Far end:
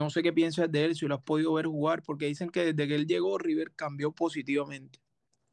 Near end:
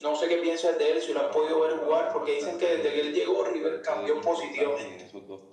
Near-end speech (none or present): present